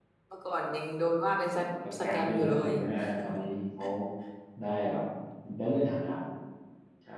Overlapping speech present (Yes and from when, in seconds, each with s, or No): Yes, from 1.4 s